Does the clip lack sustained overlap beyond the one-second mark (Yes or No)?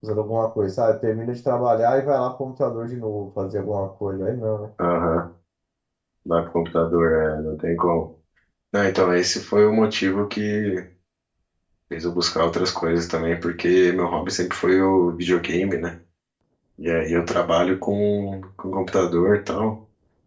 Yes